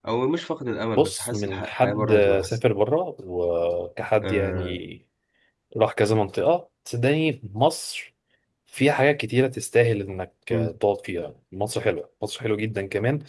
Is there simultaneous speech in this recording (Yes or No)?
Yes